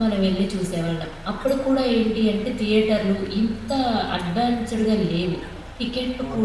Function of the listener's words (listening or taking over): listening